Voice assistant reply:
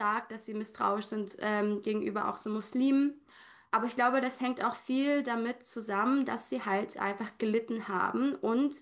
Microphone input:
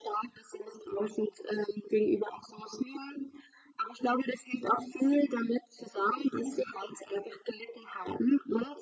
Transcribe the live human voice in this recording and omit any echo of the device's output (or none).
none